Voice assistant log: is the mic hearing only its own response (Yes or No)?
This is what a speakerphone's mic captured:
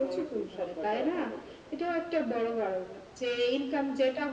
Yes